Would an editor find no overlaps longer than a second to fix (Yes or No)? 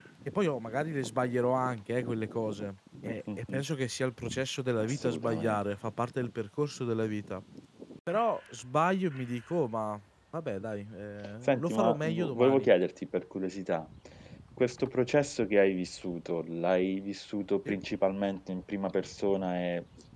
No